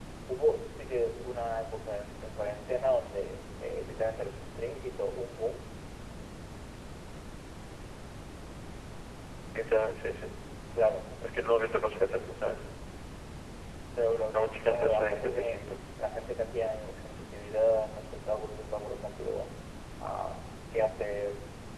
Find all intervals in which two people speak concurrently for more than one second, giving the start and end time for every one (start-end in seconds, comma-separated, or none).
14.3-15.6